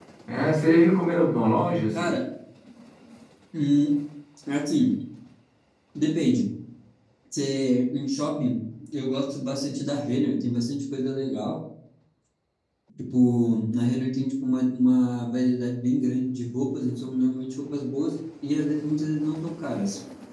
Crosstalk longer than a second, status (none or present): none